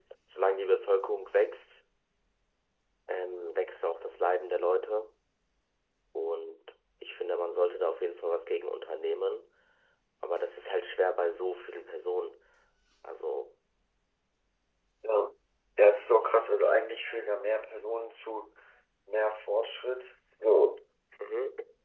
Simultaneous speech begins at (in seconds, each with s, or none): none